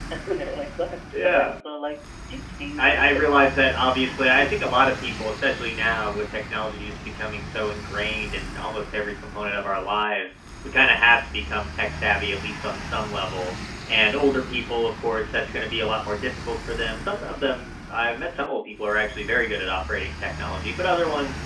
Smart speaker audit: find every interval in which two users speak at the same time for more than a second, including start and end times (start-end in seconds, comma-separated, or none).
2.8-4.9